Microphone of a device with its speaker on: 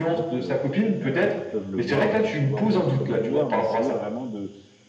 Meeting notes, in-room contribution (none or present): present